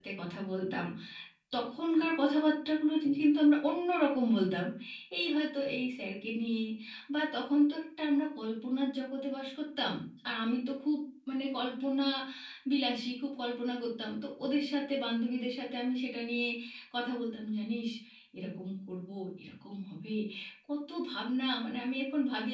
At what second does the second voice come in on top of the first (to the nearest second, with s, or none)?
none